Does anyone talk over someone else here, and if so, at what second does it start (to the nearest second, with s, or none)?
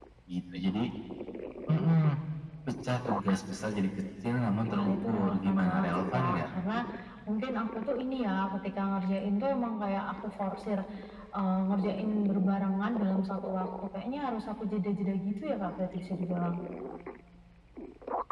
5 s